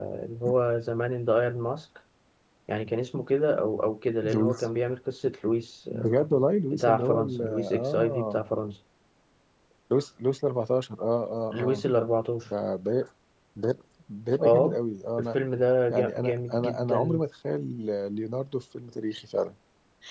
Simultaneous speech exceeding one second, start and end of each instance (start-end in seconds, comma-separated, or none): 6.7-8.4, 15.9-17.2